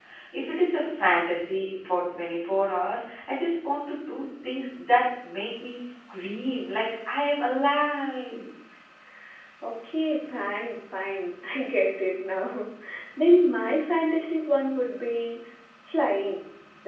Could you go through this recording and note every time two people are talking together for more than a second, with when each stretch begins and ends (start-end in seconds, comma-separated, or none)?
none